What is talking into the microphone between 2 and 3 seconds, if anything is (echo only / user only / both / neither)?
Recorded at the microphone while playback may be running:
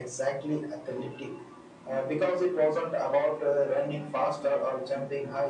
echo only